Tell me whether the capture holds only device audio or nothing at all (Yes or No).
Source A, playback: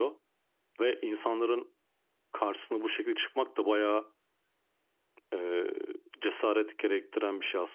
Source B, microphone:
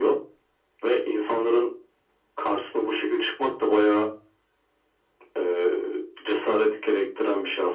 Yes